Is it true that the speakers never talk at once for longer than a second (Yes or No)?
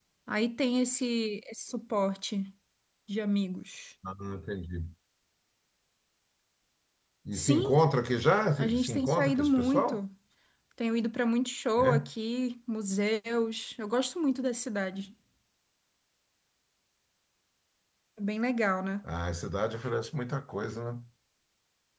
No